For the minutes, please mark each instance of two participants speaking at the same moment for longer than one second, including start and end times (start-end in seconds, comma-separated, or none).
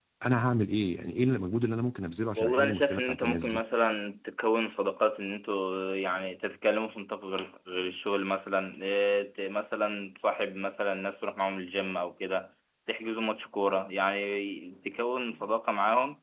2.4-3.6